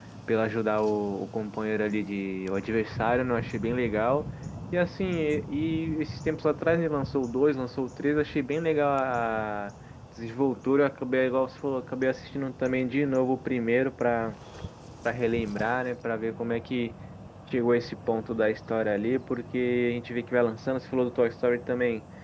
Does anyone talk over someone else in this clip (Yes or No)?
No